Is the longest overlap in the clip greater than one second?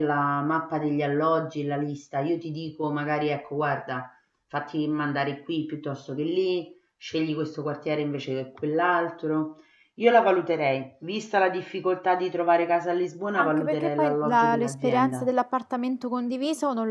Yes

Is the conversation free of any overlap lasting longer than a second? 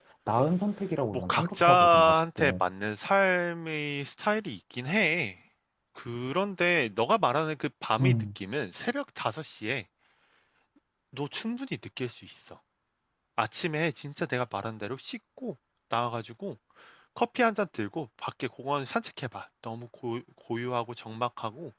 No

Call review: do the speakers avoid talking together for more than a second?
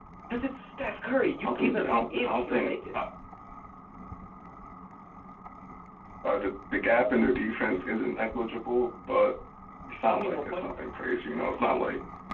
No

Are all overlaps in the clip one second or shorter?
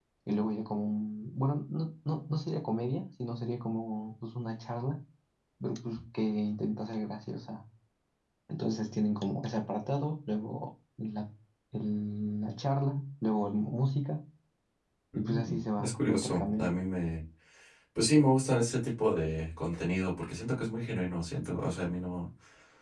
No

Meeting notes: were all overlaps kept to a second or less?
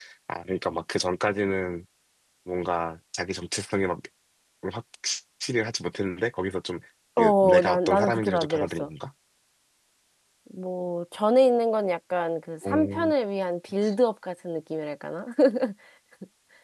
No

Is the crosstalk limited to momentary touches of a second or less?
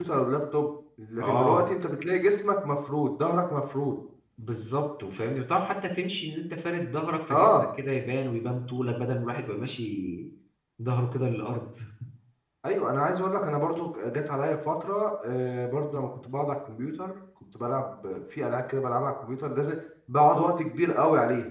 Yes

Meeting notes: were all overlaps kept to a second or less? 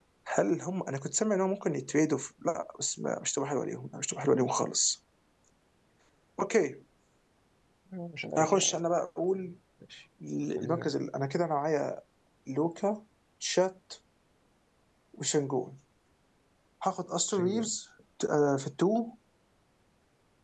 Yes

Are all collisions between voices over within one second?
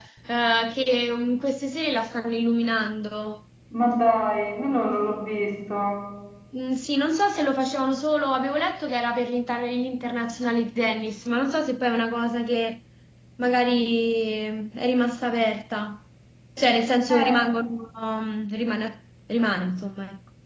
Yes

